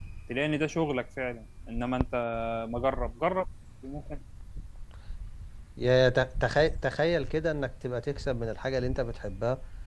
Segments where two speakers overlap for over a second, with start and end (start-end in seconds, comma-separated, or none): none